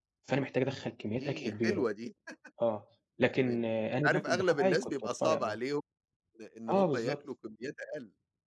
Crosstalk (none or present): present